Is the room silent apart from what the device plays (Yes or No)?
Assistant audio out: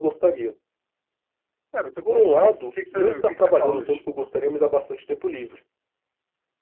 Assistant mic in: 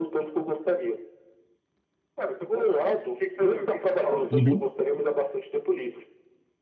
No